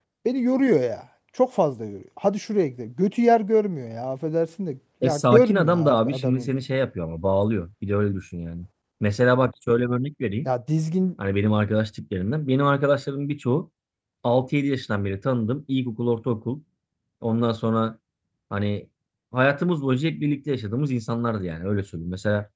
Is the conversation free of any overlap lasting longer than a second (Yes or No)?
No